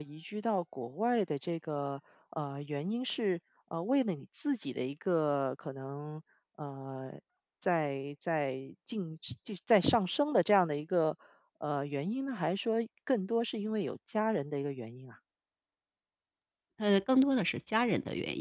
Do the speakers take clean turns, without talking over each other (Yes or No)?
Yes